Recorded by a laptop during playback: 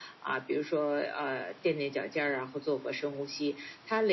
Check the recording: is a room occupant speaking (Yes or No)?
No